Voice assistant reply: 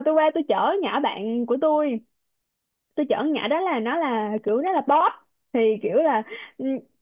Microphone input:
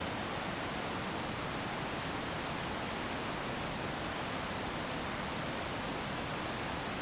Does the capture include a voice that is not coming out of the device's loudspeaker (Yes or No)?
No